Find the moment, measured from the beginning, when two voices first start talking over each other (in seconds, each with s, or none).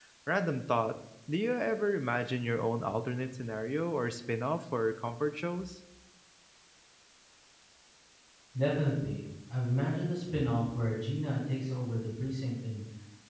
none